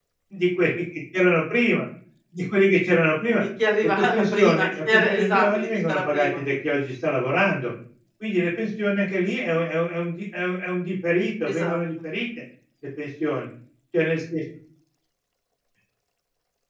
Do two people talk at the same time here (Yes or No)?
Yes